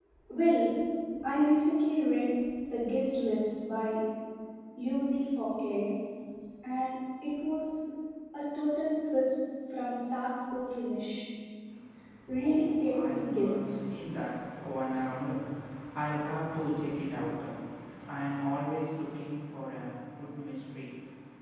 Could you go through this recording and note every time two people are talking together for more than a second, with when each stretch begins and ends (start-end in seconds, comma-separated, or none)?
12.4-13.7